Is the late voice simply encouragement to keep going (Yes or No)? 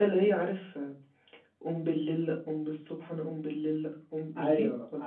No